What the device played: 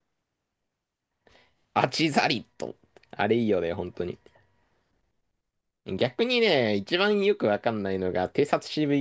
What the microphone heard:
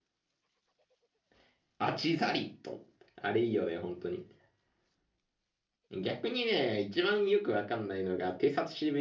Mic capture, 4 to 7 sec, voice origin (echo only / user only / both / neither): echo only